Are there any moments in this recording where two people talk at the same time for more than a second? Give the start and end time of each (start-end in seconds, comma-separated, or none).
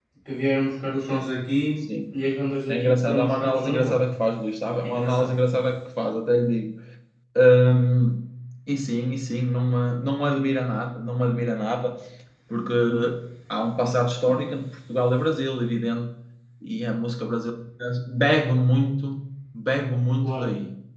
2.7-4.0